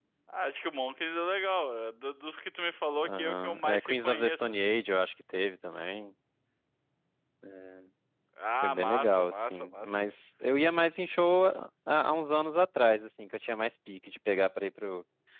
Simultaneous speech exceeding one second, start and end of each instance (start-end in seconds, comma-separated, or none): 3.0-4.7, 8.6-9.9